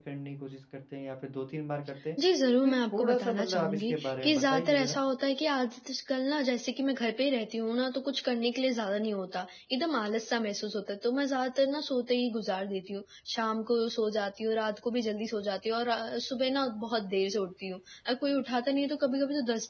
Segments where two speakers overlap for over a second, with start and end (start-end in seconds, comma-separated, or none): 2.6-5.0